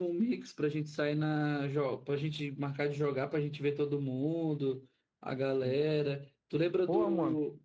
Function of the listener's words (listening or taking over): listening